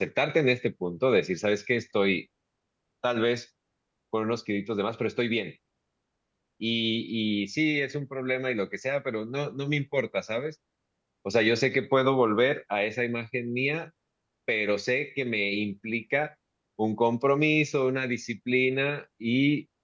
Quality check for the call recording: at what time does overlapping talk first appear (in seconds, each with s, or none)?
none